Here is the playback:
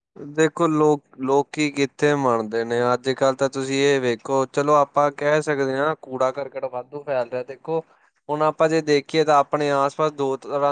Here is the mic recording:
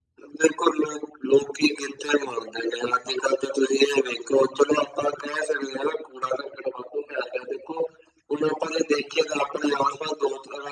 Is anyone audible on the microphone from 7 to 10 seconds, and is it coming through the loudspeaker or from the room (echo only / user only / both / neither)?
echo only